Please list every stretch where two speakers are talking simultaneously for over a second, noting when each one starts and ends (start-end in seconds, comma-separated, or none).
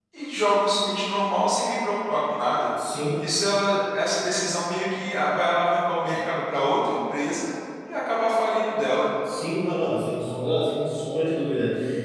none